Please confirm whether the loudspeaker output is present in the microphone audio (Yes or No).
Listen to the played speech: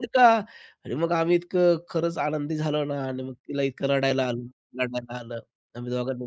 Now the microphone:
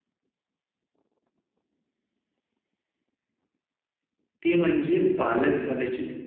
No